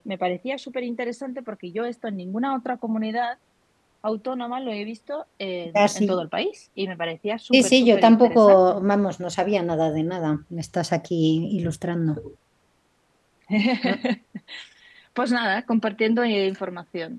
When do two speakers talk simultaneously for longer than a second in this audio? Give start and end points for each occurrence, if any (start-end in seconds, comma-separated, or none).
7.5-8.8